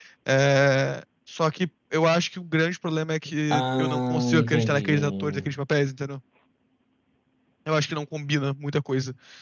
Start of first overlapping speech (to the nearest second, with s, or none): 4 s